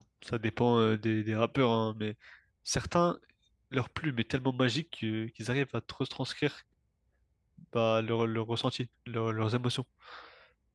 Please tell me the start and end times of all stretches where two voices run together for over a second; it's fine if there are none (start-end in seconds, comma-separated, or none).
none